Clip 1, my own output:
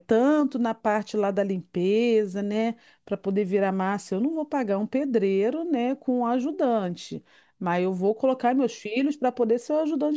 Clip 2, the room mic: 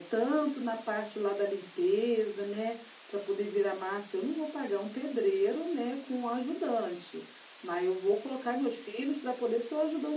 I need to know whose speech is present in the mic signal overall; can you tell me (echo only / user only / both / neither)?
echo only